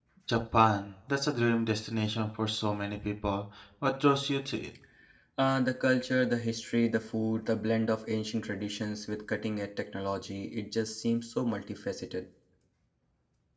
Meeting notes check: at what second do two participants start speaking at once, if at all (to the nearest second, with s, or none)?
none